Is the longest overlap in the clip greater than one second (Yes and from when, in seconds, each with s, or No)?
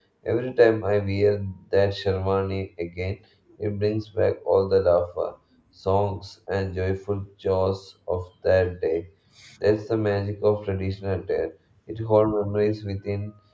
No